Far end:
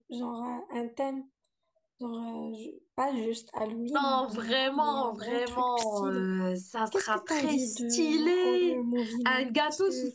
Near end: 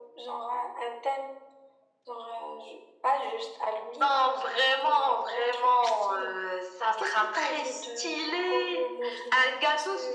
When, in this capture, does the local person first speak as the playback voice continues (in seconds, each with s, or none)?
none